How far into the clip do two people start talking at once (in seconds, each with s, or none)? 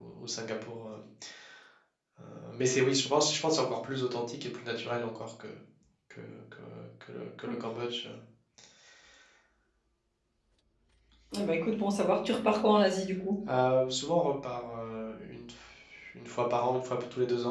none